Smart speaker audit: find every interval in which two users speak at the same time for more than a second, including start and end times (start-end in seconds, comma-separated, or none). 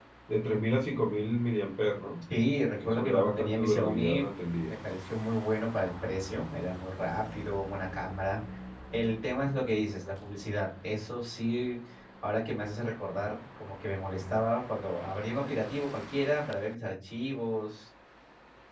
2.9-4.2